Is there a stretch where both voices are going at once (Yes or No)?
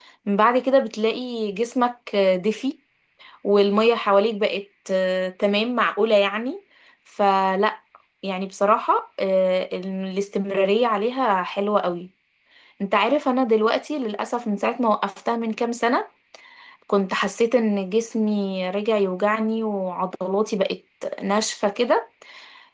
No